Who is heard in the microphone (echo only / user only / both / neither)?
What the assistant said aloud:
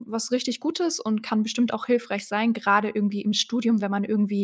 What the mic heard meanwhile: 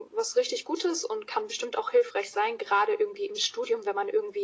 echo only